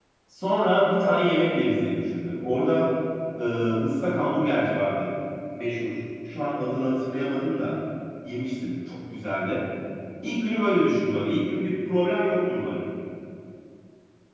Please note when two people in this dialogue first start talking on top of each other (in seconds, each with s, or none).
none